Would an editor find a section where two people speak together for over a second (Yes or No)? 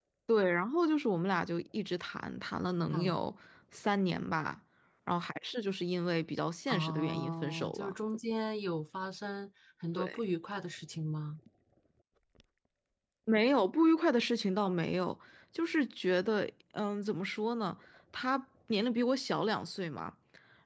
Yes